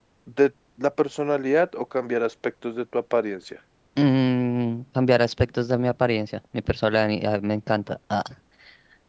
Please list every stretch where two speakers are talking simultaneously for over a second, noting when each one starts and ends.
none

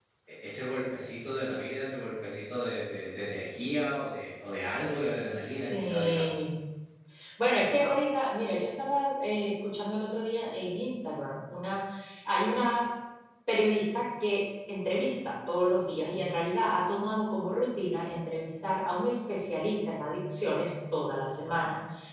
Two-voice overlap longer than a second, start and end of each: 4.7-6.2

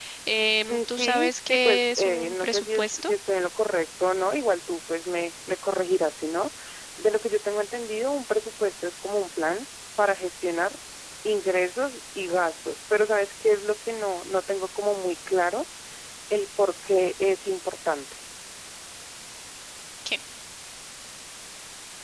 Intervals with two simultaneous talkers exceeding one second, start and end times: 0.7-3.1

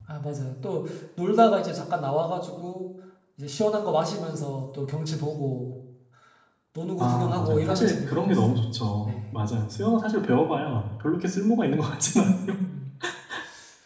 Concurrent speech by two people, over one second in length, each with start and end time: 7.0-8.4

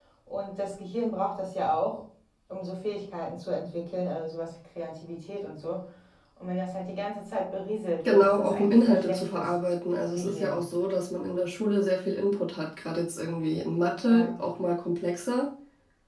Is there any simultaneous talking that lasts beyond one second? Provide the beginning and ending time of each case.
8.1-9.5

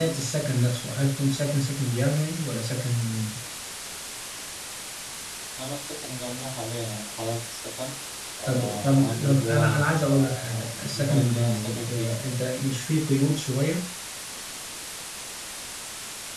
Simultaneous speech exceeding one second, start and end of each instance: 8.5-12.2

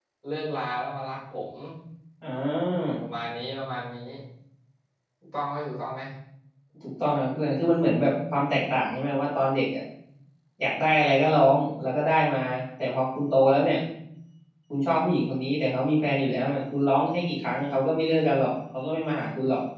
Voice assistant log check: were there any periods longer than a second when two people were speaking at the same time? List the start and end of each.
none

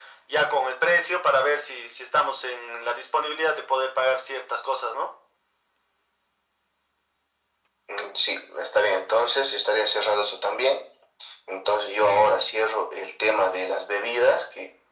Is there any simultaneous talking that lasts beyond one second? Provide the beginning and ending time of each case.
none

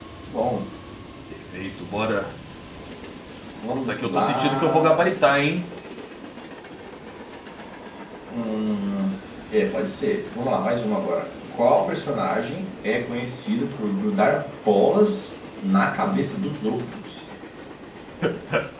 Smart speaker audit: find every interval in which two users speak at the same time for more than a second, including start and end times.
3.8-5.1

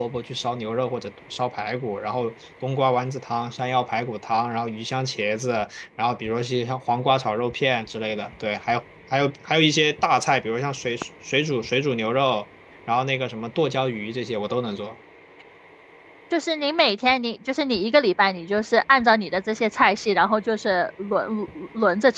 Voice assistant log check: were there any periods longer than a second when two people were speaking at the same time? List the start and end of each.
none

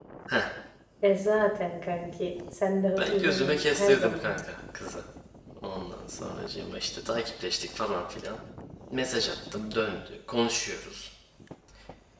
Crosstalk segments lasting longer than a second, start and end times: 3.0-4.3

